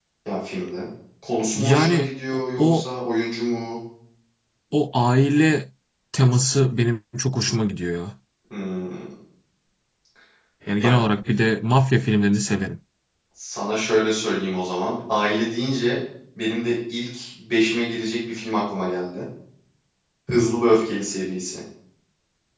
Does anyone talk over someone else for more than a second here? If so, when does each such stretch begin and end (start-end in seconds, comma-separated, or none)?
1.6-2.9